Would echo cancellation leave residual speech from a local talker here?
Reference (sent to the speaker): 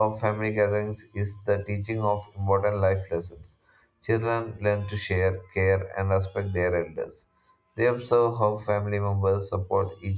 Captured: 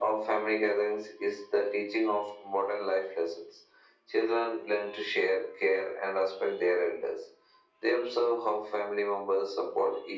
No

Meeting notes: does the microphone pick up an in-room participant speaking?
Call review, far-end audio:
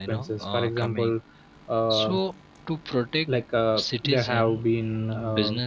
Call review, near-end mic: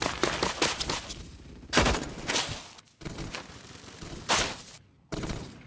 No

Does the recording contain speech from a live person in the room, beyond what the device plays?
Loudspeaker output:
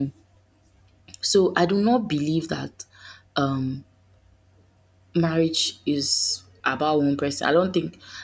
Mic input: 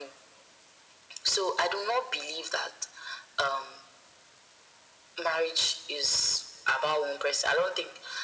No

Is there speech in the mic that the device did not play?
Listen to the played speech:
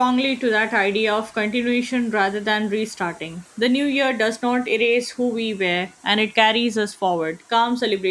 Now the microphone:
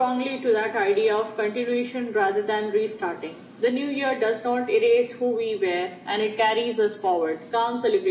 No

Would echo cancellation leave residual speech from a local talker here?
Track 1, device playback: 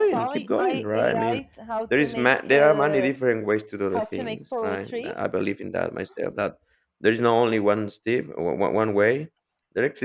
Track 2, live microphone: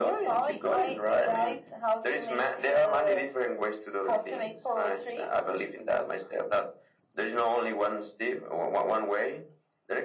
No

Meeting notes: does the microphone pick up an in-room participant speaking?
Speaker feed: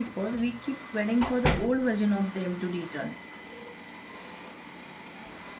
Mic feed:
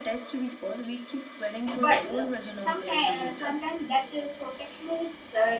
Yes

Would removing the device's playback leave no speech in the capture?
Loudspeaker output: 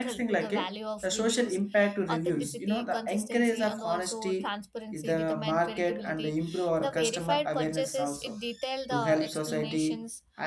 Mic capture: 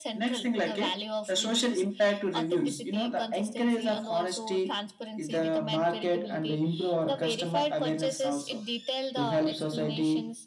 Yes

